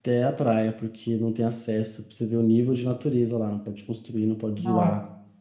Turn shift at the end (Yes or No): No